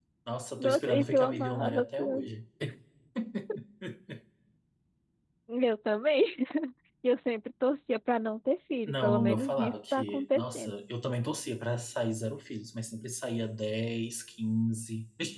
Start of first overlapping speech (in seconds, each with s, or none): 0.6 s